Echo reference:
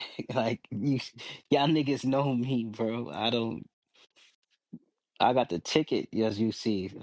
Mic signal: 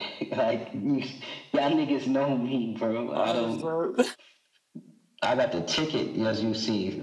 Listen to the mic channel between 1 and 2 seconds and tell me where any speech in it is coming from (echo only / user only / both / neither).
echo only